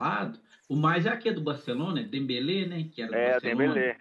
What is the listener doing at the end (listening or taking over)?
taking over